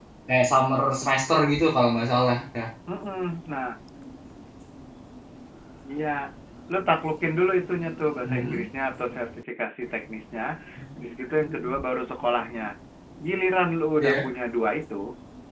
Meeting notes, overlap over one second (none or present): none